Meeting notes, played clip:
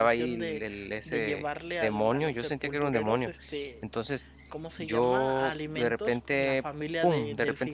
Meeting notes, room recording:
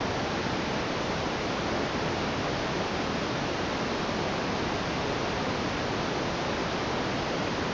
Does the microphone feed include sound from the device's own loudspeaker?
No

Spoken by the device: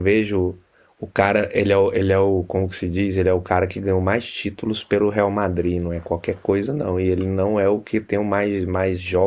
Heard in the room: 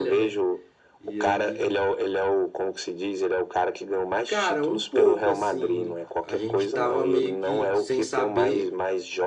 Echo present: Yes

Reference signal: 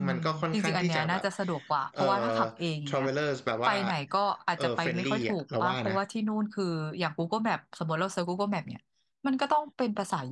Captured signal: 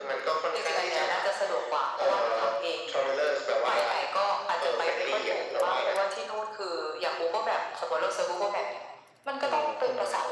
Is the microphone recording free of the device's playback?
No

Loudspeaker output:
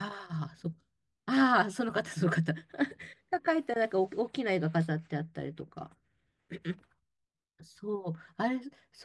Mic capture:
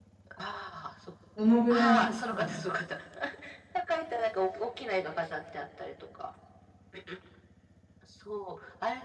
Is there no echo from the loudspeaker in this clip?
No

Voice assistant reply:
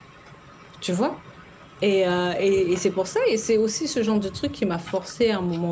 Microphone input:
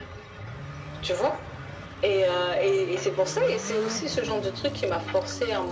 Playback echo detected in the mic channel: Yes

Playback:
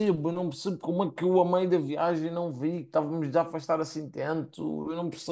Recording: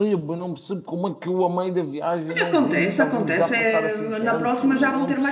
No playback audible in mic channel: No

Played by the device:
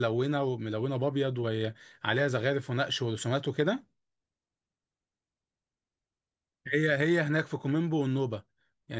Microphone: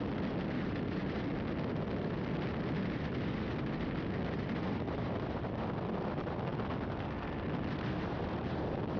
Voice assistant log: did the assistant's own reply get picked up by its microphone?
No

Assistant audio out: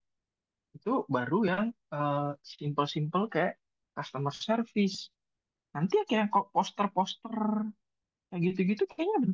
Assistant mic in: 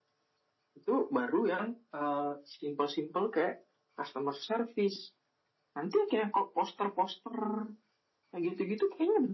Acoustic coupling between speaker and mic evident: Yes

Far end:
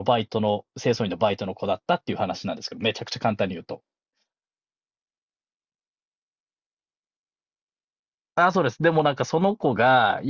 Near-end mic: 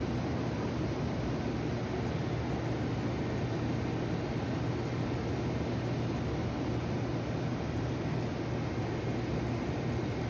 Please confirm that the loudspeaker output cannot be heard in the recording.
Yes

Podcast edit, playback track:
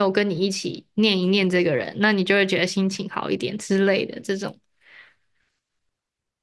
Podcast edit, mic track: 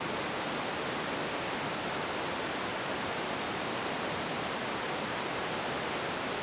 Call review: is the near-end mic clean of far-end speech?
Yes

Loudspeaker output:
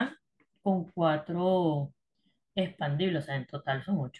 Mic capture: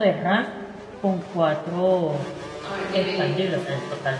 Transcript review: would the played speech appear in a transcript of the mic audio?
Yes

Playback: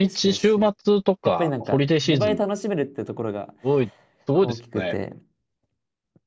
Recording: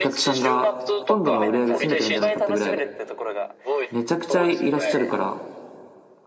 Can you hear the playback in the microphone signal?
Yes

